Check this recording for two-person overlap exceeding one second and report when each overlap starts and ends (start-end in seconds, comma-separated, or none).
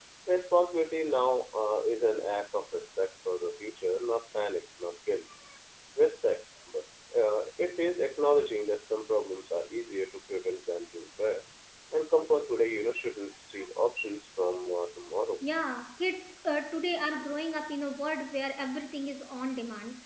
none